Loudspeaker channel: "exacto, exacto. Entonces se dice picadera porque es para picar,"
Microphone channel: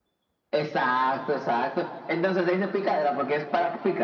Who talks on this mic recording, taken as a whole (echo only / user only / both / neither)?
echo only